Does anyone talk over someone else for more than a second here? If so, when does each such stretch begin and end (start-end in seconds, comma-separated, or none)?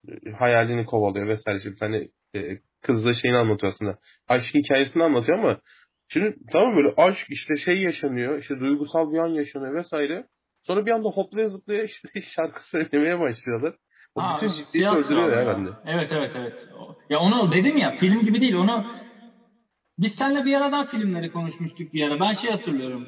14.2-15.6